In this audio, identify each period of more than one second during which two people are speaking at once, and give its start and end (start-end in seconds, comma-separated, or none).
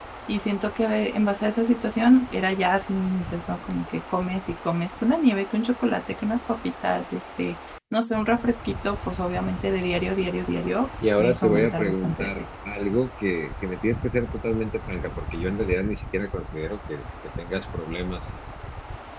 11.2-12.5